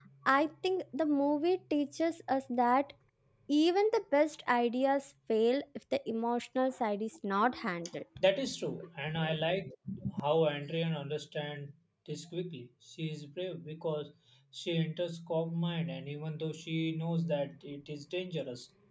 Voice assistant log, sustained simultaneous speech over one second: none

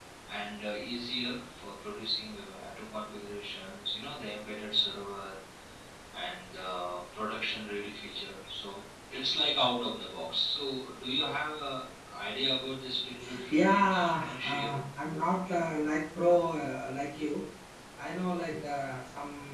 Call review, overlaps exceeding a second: present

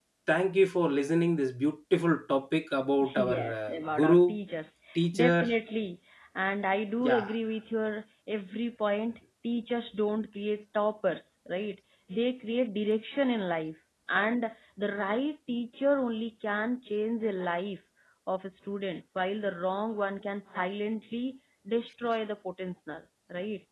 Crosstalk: present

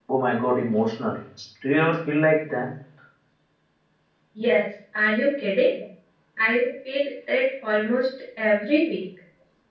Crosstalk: none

